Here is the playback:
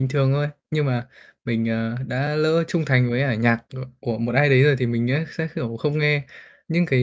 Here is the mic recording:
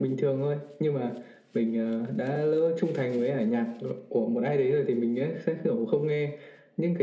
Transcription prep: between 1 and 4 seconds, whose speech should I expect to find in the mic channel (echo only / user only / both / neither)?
echo only